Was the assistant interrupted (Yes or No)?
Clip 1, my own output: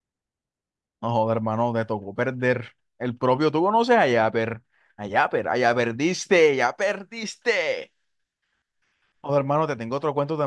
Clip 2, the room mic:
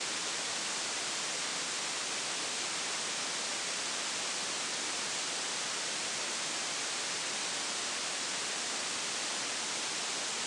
No